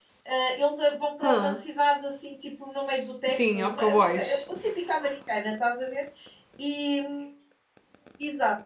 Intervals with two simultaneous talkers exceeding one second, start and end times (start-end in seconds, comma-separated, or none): 3.3-4.5